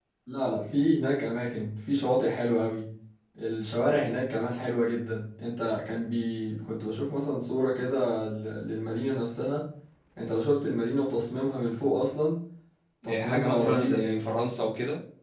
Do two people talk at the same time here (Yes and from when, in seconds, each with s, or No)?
Yes, from 13.0 s